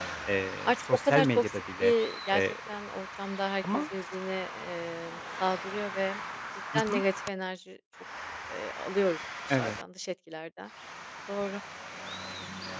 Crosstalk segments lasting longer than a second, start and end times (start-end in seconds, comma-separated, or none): 0.7-1.9